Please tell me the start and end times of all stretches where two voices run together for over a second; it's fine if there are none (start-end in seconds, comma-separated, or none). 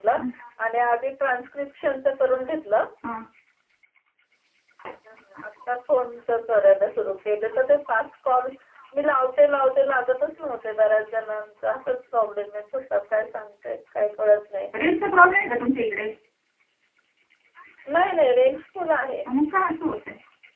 none